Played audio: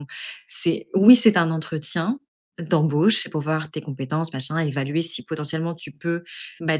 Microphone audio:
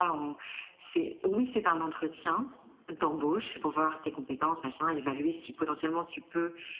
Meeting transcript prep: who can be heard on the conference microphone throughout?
echo only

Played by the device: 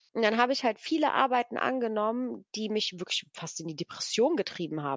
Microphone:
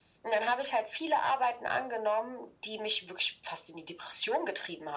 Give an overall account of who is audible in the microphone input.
echo only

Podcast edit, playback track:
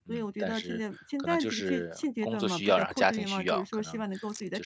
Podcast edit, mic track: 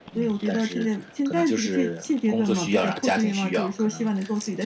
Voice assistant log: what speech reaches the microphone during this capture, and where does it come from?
echo only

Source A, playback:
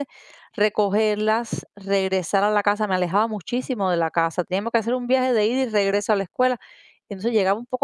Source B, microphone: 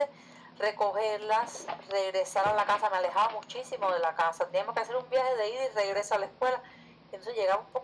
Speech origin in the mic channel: echo only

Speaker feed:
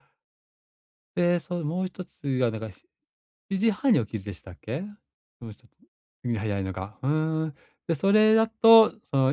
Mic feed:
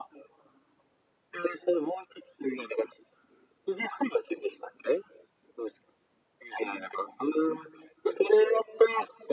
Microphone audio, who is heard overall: echo only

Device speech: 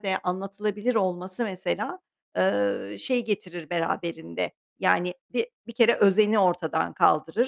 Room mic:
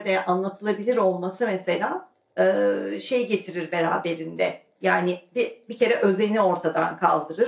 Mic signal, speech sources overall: echo only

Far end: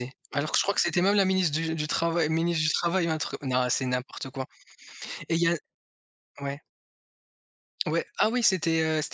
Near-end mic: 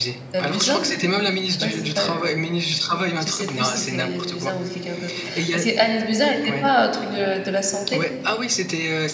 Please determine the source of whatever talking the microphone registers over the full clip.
both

